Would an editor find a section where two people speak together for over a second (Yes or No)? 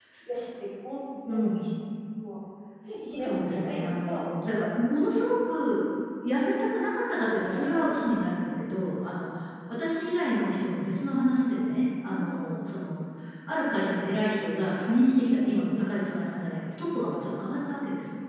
Yes